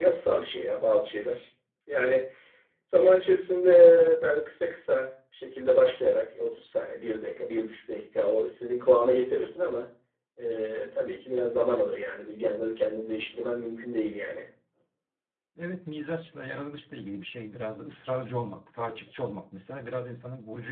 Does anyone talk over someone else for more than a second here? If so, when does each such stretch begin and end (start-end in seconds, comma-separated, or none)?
none